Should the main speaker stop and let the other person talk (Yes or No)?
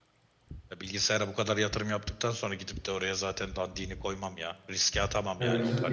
Yes